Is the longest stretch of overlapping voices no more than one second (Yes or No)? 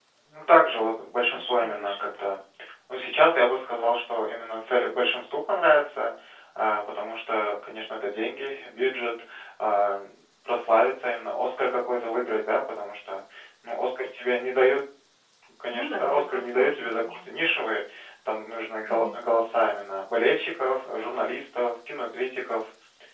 No